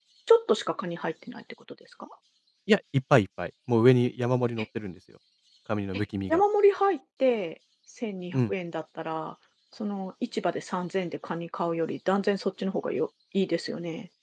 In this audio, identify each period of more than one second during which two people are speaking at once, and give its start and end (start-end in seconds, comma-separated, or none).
none